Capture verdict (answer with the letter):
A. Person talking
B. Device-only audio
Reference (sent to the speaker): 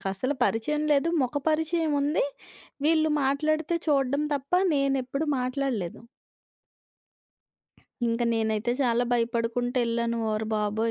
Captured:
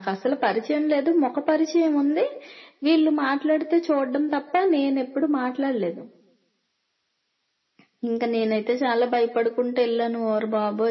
B